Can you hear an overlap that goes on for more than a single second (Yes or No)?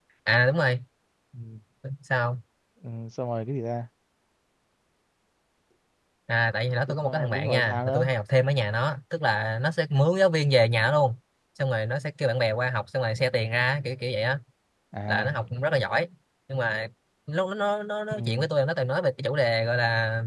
Yes